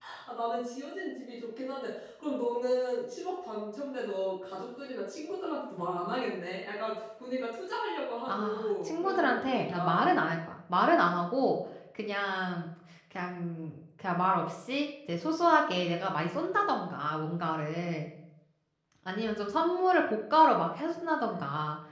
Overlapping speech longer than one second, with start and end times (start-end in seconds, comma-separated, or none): 8.3-10.2